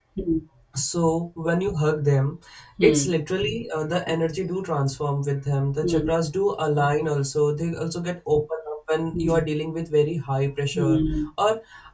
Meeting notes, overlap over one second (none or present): none